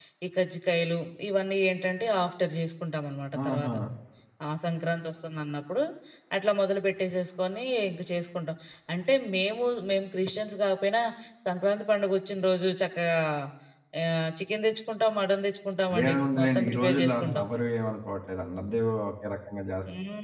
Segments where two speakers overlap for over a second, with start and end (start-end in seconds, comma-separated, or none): 15.9-17.4